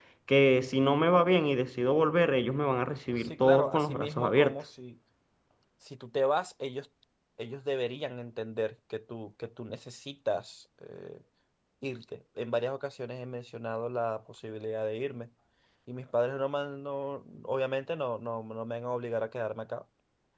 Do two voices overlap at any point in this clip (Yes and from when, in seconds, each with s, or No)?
Yes, from 3.1 s